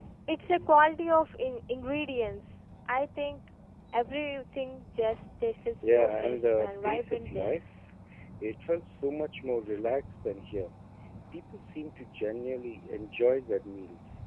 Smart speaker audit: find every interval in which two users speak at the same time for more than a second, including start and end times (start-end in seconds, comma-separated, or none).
5.8-7.6